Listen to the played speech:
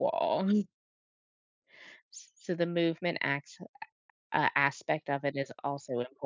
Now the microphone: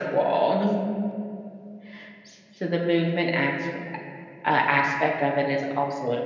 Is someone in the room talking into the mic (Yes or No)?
No